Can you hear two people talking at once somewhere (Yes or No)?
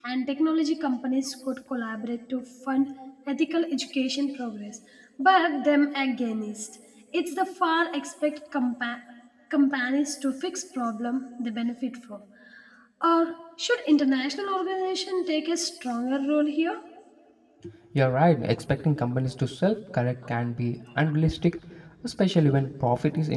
No